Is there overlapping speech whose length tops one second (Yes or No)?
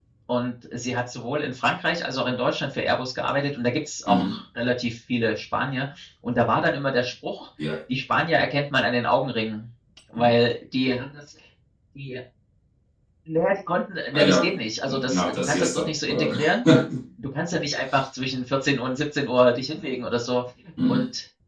Yes